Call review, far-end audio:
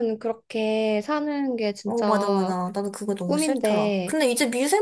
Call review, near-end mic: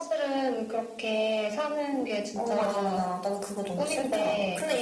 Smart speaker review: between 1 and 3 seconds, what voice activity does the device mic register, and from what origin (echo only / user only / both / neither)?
echo only